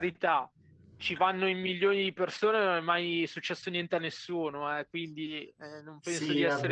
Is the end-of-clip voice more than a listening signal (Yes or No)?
Yes